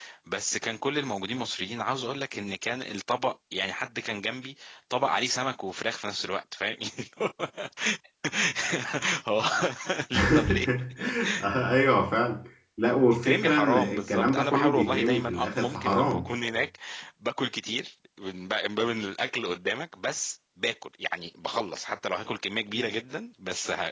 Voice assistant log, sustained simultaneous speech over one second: present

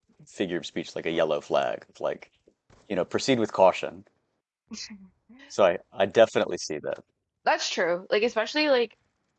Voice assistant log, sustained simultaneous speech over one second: none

